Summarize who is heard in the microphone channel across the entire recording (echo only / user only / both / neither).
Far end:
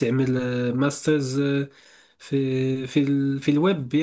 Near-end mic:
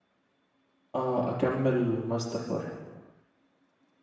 user only